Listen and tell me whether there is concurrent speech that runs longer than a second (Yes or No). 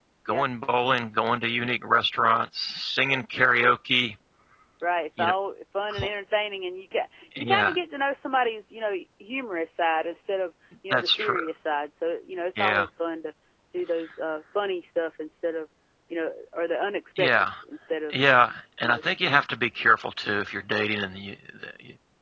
No